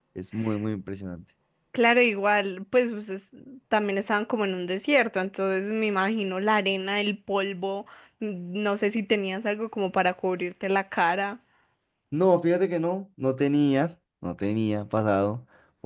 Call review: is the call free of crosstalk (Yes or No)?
Yes